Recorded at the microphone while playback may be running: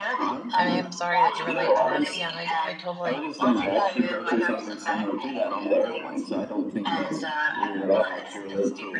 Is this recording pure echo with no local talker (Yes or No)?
No